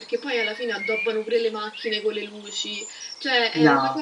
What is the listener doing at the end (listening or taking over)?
listening